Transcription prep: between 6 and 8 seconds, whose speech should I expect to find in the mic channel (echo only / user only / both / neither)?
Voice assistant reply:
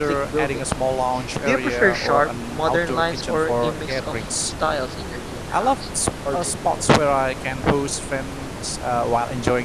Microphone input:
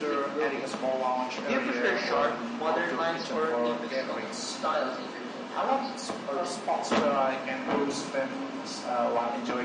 echo only